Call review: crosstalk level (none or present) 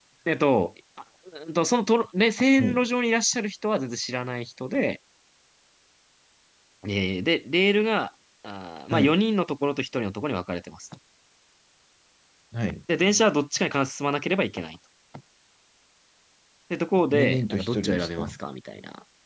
present